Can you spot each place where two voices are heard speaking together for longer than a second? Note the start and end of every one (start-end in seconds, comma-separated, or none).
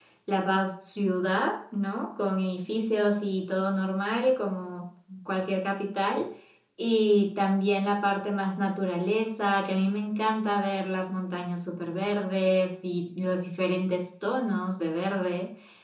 none